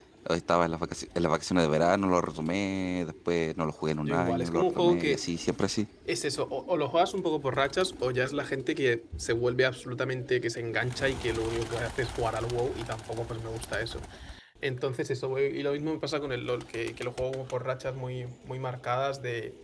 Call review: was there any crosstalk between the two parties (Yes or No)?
Yes